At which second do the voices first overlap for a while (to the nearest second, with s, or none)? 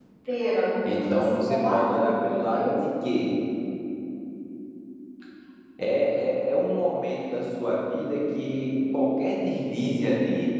1 s